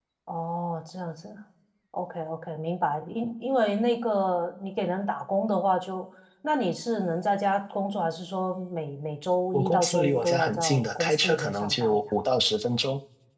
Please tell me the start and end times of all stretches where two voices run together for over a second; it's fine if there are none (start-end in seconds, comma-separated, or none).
9.5-12.0